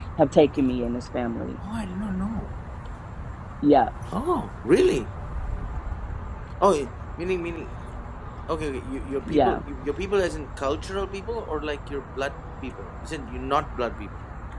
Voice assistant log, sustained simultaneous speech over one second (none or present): none